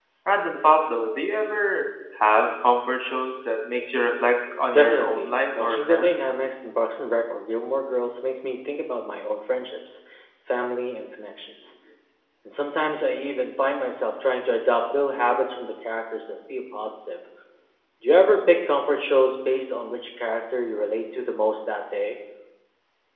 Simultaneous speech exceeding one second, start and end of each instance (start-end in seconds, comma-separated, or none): 4.7-6.3